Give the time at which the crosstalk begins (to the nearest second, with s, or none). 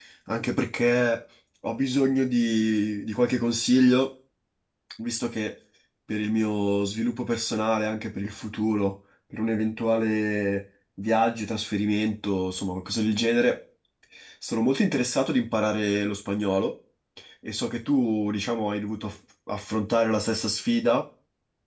none